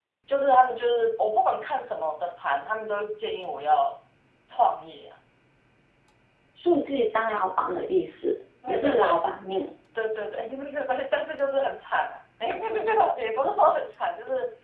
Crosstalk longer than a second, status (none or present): none